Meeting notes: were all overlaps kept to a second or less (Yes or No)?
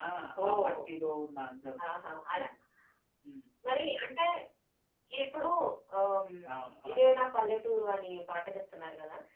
Yes